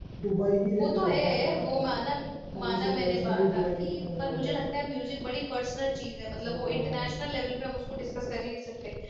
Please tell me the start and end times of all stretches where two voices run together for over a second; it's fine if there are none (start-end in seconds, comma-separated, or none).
0.8-2.0, 2.6-4.6